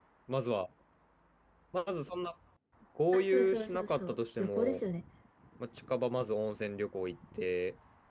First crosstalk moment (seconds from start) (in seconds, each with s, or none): 3.1 s